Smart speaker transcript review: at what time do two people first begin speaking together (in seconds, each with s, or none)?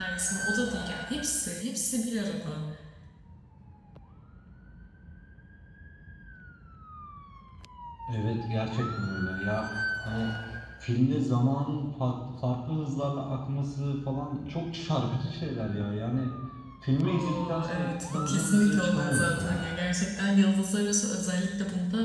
17.0 s